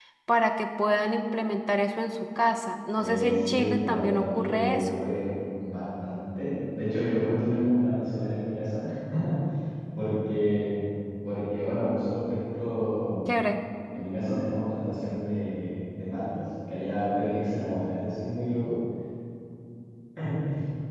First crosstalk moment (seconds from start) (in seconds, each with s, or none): 3.0 s